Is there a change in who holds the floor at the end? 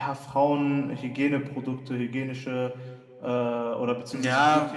Yes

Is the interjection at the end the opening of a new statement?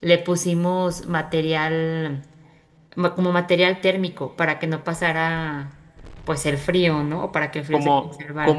Yes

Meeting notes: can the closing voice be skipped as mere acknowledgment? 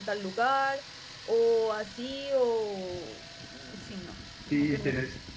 No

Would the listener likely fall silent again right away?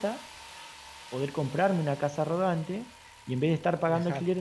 Yes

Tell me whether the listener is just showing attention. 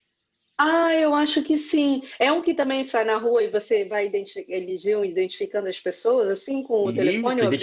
No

